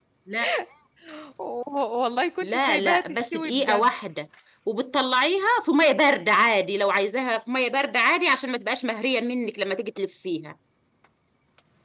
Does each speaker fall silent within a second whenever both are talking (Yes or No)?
No